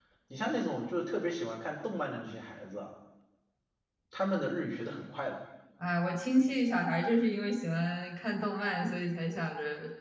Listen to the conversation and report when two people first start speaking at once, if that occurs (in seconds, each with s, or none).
none